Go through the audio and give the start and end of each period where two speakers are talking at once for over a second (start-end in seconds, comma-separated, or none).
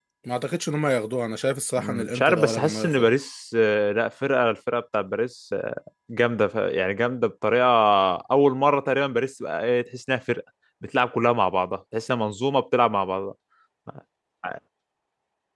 1.8-3.1